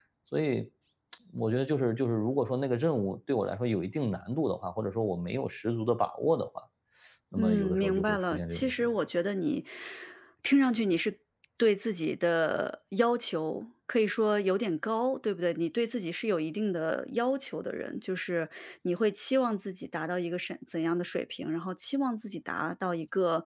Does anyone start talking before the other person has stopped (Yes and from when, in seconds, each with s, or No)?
Yes, from 7.4 s